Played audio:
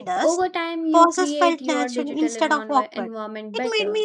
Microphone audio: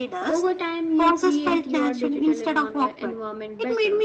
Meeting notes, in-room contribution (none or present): none